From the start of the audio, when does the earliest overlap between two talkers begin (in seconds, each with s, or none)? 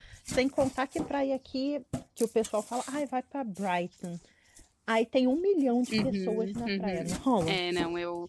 5.9 s